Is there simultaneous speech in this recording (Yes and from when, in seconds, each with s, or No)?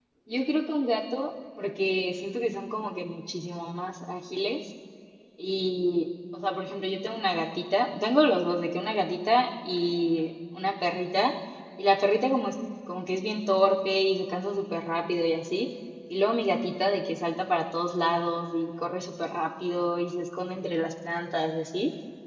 No